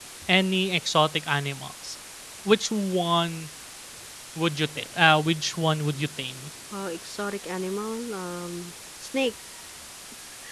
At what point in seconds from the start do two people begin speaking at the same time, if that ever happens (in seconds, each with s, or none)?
none